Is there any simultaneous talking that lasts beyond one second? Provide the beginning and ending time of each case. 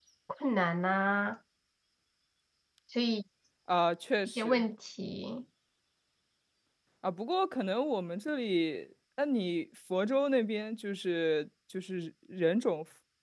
none

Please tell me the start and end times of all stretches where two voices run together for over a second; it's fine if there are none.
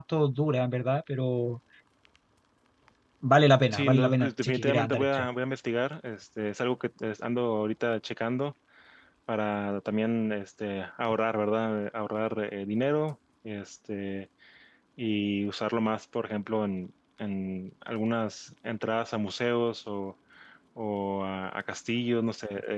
3.7-5.3

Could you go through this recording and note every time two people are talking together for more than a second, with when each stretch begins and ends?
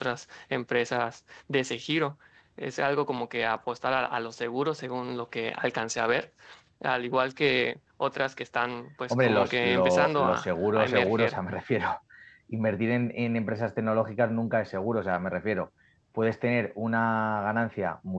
9.1-11.4

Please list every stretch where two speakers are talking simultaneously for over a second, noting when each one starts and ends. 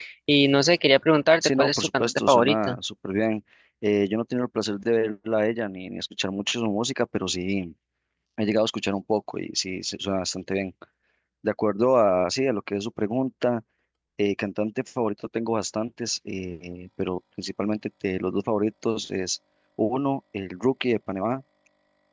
1.4-2.8

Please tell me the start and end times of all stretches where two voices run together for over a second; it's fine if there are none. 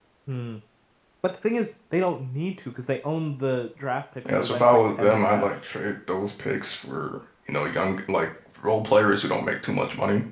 4.3-5.6

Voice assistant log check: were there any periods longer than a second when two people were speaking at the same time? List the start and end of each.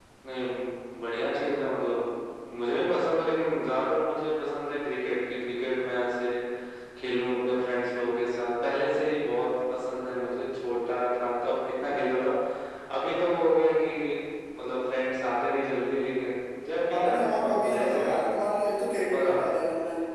16.9-18.4

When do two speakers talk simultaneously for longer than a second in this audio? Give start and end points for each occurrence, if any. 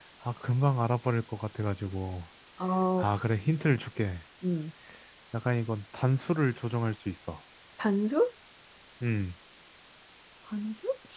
none

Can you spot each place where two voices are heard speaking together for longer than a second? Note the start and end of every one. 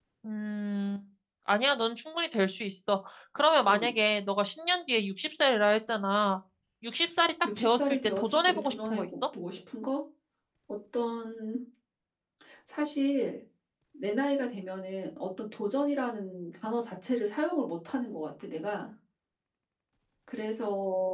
7.6-9.1

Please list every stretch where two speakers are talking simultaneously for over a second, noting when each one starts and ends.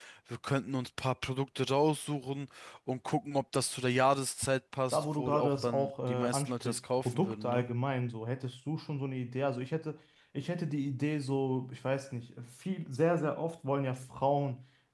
4.9-7.6

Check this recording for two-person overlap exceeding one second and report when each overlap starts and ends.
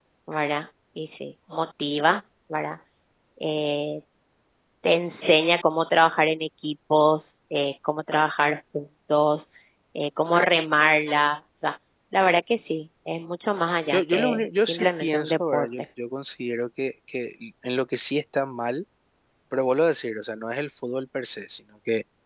13.9-15.7

